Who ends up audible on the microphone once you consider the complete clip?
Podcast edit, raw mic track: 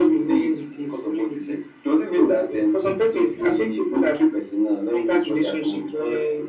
echo only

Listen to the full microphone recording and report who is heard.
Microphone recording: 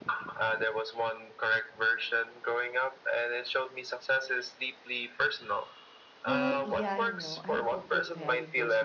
both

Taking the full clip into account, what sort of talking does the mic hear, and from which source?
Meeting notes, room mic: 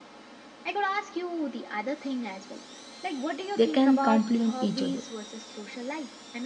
both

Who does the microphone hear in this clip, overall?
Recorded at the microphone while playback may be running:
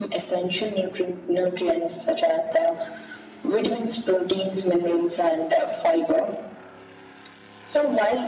echo only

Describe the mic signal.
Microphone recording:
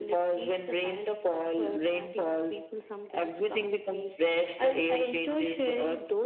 echo only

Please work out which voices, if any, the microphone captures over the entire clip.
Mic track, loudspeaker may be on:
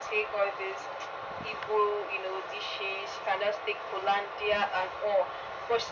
echo only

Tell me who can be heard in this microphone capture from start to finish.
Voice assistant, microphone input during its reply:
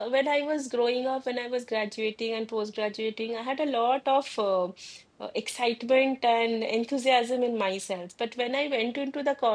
user only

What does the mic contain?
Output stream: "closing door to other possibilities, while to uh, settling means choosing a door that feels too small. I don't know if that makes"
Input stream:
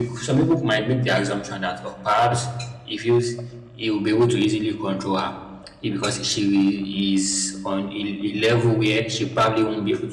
user only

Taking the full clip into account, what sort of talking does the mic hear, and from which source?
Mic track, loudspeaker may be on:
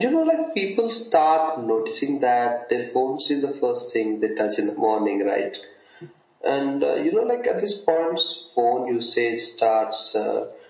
echo only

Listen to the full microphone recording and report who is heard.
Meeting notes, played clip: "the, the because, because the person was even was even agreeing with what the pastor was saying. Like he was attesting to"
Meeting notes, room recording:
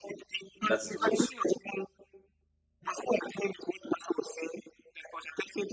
both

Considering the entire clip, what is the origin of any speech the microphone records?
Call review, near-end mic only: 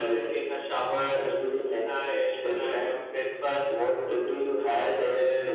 echo only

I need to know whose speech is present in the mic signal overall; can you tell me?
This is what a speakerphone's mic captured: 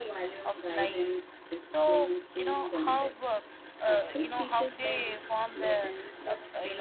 both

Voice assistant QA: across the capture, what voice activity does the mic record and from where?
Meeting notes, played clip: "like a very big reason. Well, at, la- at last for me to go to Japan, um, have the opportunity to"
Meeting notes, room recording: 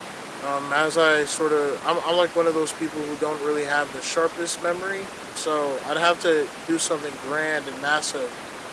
user only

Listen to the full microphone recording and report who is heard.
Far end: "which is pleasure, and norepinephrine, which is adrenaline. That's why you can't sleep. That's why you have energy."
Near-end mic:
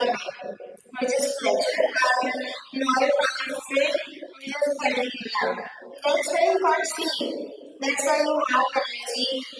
echo only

